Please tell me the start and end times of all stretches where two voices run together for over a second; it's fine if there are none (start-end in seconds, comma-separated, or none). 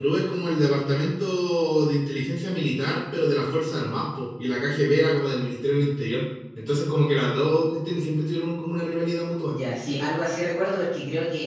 none